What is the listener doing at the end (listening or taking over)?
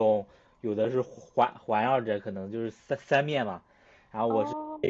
listening